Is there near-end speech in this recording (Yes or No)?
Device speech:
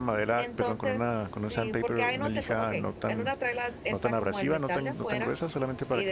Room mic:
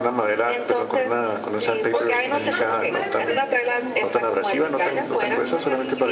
Yes